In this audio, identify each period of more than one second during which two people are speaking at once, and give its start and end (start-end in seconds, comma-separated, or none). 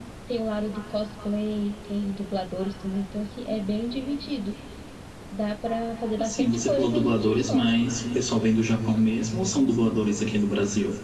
6.2-7.7